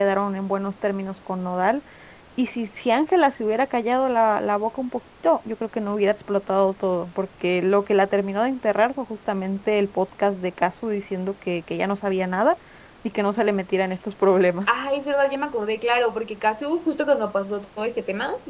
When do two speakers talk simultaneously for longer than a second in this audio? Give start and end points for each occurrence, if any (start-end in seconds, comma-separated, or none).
none